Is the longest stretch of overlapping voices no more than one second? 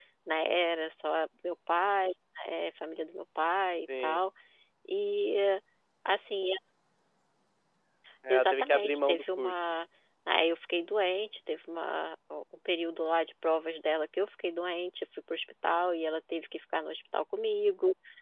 No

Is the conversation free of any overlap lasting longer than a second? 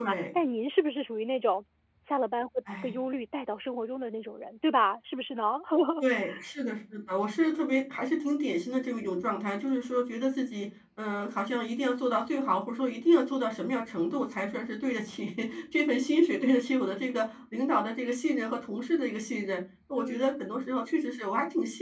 Yes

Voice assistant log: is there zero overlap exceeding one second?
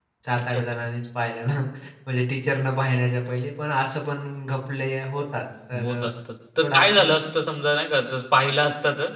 Yes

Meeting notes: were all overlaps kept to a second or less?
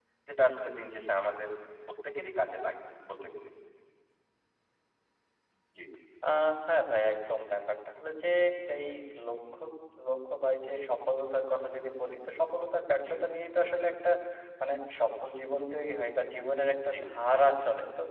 Yes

